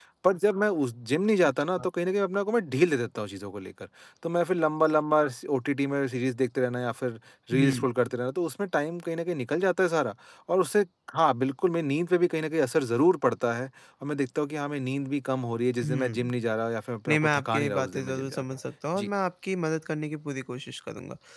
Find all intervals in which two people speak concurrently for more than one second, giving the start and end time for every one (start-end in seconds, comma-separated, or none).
17.1-18.4